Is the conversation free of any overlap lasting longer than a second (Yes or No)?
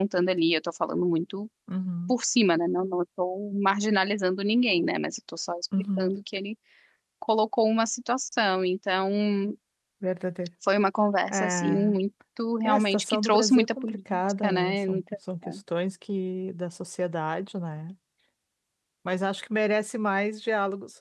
No